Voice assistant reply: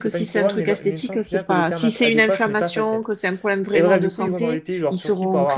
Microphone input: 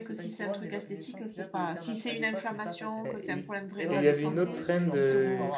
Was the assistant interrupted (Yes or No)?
Yes